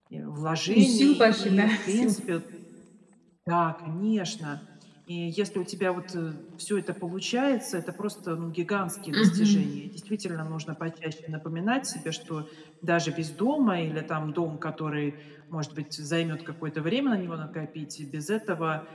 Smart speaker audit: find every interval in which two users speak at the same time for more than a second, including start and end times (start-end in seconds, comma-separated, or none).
0.7-2.2